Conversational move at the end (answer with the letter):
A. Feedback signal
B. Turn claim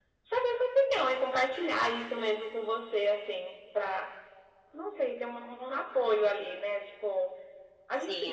A